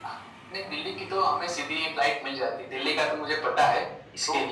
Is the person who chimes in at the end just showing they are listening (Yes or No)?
No